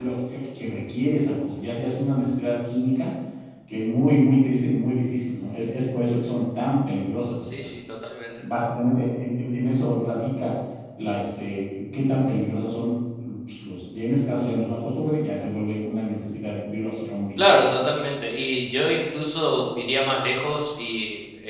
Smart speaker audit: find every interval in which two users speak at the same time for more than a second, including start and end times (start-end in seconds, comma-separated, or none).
none